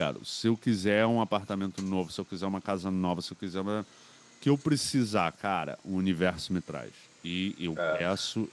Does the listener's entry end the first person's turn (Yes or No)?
No